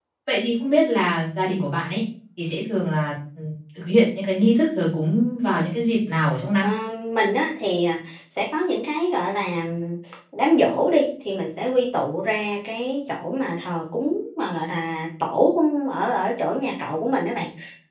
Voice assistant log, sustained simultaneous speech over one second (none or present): none